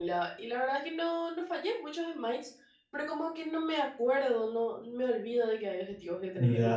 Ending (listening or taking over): taking over